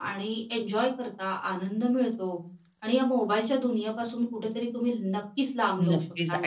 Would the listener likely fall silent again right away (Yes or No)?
No